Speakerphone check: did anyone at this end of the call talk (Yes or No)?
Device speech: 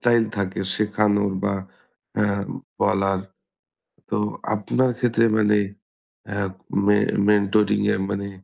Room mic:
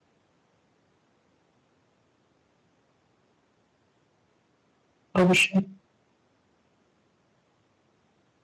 Yes